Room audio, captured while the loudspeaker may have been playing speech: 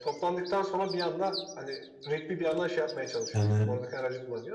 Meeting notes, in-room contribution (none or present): present